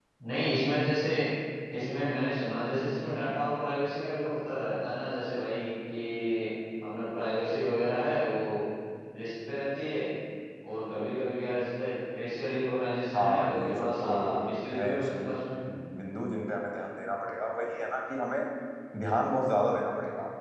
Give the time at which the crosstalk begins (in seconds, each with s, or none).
13.1 s